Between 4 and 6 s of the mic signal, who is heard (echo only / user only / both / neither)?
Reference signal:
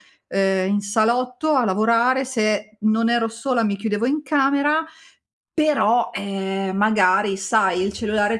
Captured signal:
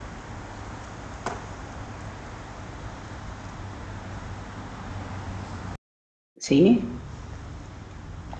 neither